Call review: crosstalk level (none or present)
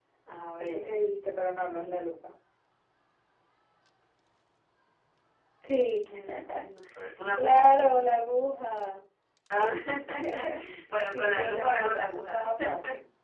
present